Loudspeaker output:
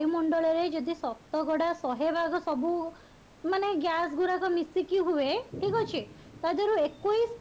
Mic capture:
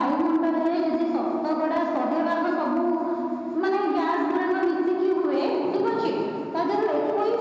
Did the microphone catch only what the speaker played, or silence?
Yes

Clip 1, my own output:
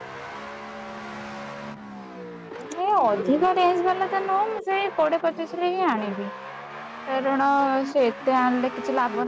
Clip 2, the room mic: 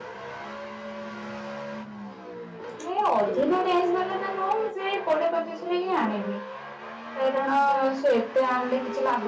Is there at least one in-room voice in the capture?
No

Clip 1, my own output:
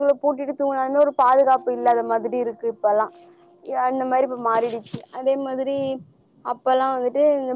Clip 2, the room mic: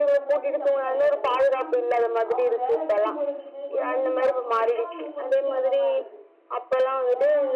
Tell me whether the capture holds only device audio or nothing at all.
No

